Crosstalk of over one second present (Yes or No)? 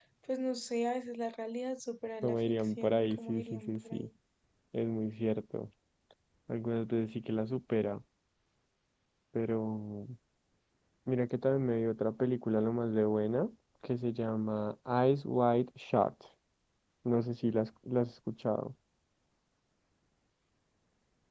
Yes